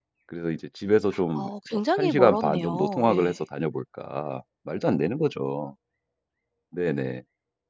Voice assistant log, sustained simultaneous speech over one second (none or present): present